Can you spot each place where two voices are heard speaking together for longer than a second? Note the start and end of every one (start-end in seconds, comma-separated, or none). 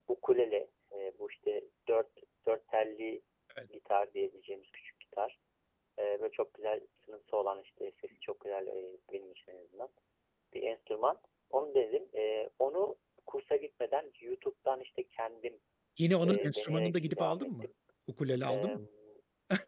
16.2-17.6